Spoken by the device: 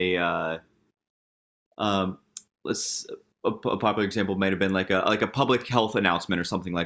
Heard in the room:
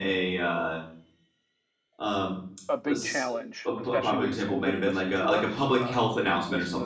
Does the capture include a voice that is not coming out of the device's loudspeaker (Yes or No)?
Yes